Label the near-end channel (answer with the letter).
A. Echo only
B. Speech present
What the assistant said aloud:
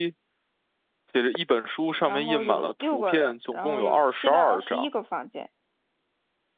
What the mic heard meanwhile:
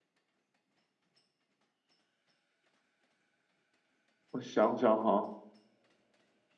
B